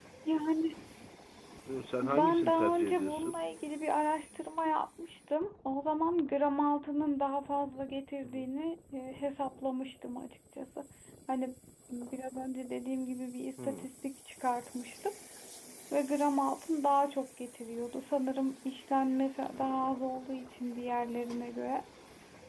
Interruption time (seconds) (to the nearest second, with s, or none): 2 s